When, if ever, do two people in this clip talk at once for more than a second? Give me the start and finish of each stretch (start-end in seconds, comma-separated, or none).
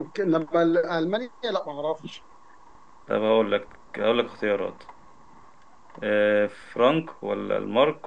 none